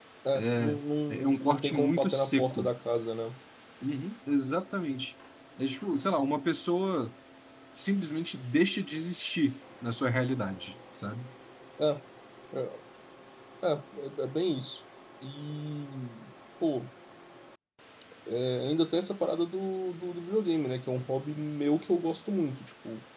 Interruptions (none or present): present